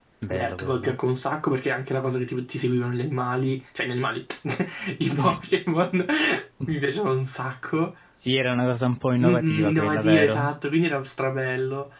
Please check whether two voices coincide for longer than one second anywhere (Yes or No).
Yes